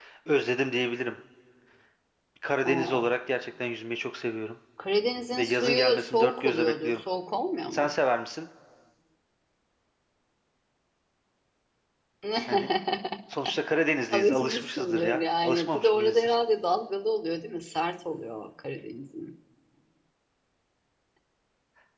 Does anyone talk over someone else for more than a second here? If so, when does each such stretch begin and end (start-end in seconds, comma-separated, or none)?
5.4-7.0, 14.1-16.4